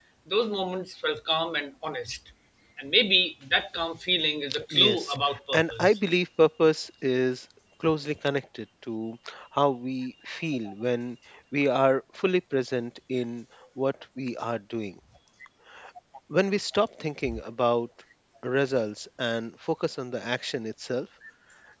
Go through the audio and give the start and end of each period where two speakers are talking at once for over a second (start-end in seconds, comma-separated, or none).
4.7-6.0